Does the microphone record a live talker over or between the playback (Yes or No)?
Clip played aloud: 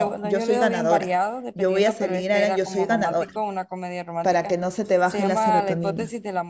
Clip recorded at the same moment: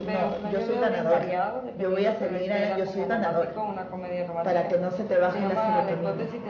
No